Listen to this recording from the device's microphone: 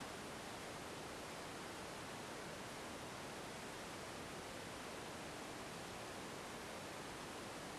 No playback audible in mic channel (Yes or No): Yes